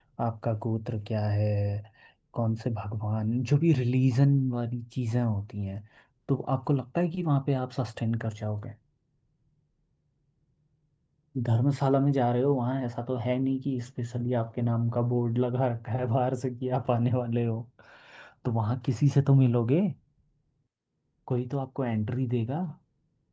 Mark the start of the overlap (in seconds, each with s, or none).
none